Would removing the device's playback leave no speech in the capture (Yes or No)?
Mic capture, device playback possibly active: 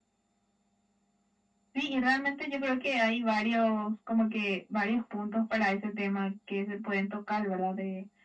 Yes